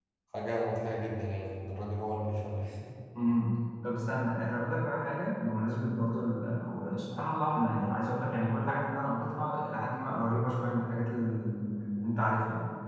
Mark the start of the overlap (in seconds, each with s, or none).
none